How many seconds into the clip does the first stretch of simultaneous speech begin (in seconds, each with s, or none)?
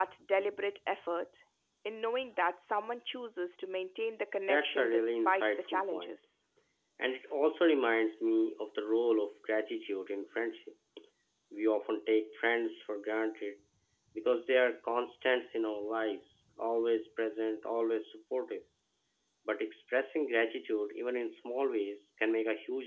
4.5 s